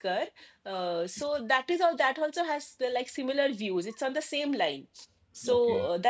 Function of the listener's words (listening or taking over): listening